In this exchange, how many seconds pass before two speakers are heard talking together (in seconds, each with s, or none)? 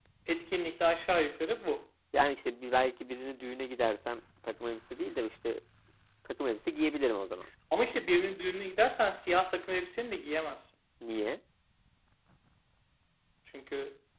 none